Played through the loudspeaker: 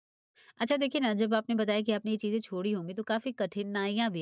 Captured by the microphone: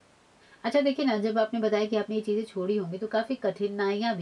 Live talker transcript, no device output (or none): none